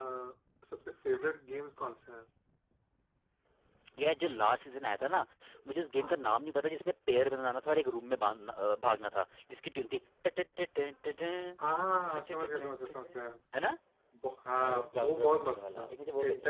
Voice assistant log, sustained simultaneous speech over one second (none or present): present